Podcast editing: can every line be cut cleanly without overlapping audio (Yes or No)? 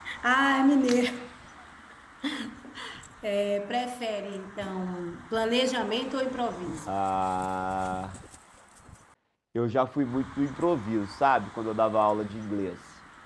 Yes